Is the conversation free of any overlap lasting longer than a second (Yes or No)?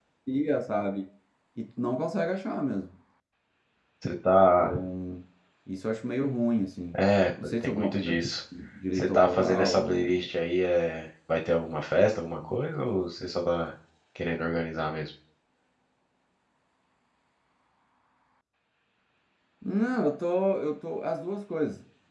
No